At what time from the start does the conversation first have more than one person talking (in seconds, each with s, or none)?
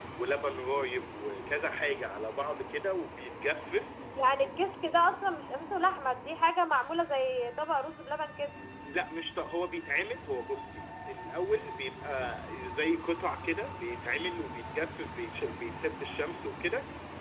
none